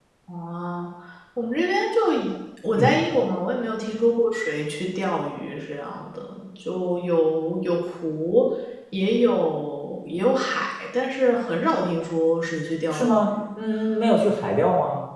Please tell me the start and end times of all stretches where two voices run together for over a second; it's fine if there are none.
none

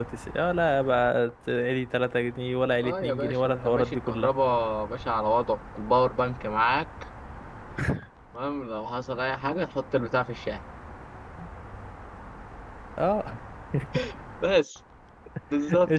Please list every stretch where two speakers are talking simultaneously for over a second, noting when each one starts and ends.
2.8-4.3

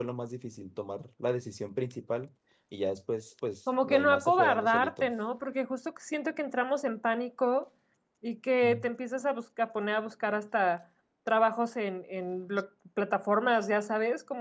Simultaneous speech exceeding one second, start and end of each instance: 3.8-5.1

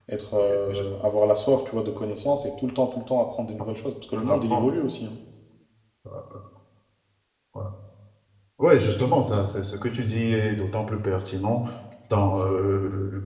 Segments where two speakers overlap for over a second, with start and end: none

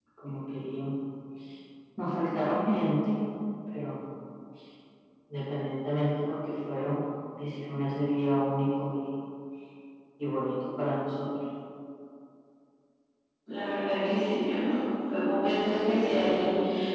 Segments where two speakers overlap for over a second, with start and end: none

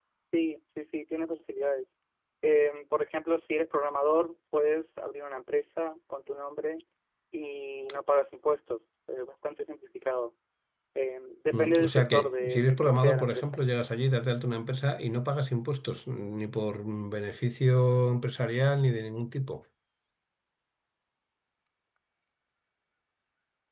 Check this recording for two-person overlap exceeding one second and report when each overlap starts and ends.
11.5-13.6

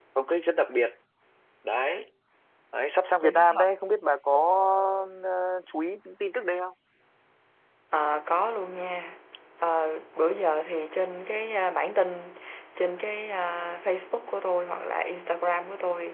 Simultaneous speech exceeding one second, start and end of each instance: none

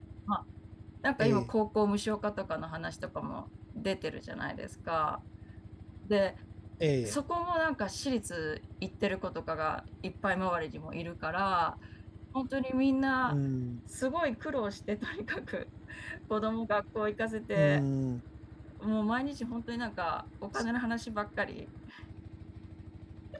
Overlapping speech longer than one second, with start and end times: none

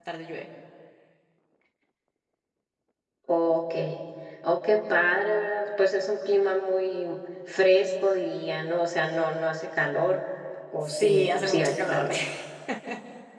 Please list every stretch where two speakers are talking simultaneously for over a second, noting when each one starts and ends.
10.8-12.0

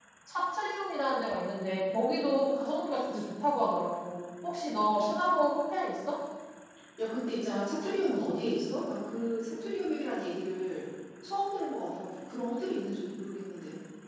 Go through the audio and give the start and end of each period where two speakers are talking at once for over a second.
none

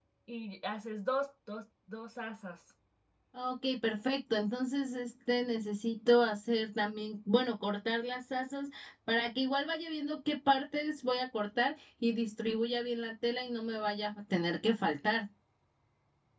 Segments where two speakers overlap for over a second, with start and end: none

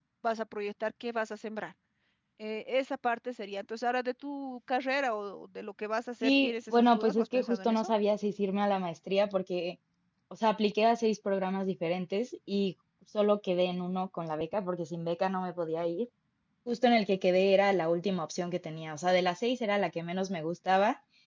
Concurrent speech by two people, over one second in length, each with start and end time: 6.2-7.9

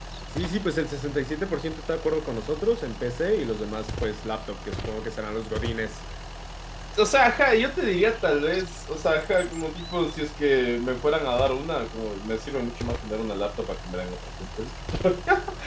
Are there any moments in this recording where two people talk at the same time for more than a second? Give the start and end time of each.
none

